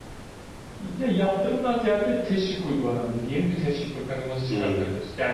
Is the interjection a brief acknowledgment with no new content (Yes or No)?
Yes